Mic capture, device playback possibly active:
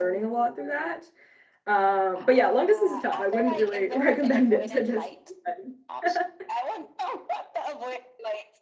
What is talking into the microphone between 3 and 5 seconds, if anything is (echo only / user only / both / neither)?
both